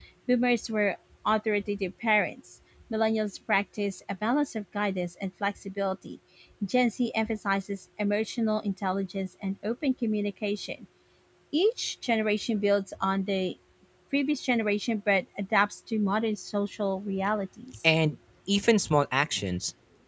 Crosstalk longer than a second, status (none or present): none